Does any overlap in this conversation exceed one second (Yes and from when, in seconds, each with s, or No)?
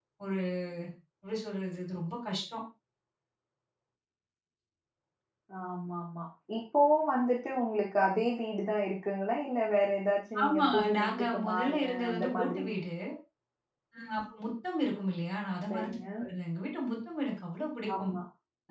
Yes, from 10.4 s